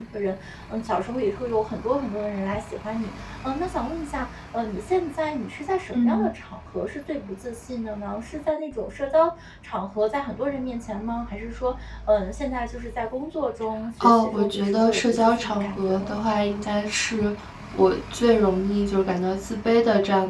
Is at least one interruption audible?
Yes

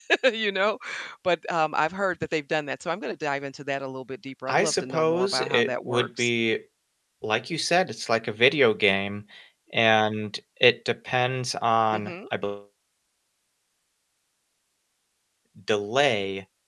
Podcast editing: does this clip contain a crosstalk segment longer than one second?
Yes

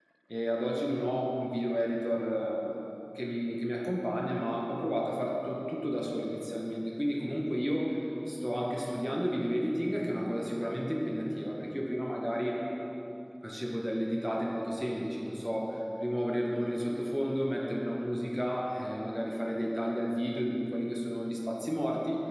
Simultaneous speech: No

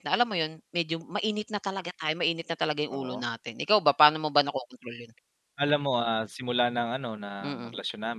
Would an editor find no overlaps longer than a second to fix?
Yes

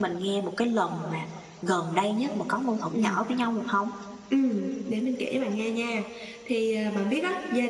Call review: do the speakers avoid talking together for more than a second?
Yes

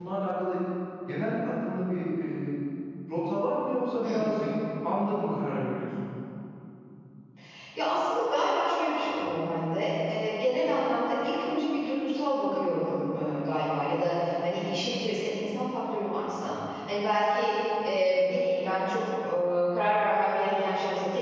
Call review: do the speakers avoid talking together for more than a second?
Yes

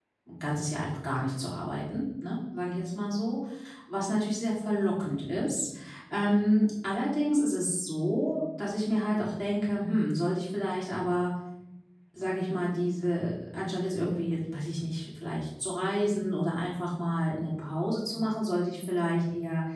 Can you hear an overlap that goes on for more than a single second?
No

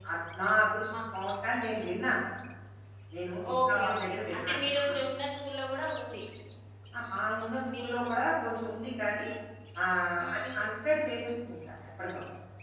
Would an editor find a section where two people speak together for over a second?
Yes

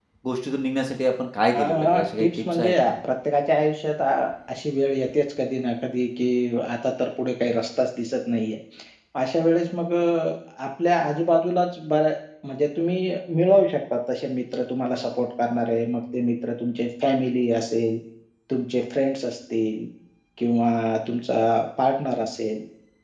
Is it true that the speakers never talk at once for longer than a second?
No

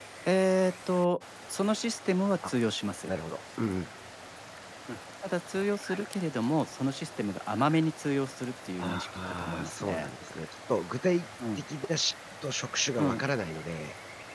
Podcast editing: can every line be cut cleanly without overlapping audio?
No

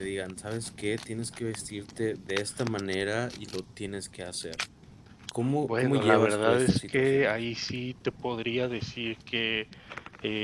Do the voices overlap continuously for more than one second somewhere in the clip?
Yes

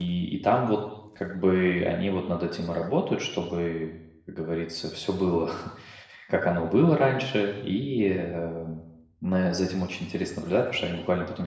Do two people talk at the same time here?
No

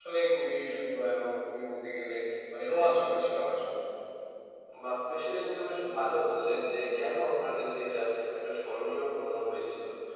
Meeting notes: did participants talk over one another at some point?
No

